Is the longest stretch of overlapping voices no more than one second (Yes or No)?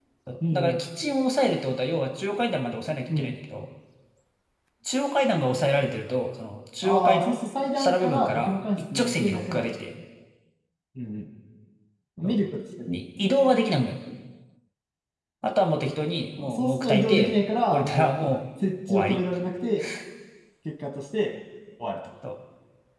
No